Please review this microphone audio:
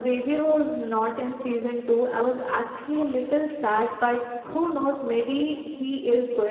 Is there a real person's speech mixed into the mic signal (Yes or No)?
No